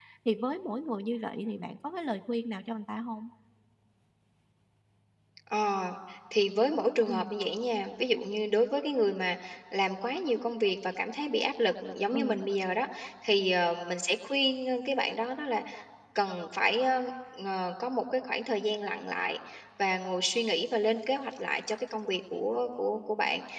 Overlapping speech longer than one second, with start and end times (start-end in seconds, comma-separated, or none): none